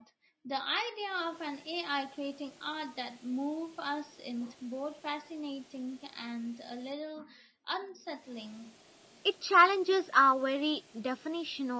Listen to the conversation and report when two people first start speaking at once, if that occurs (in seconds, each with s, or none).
none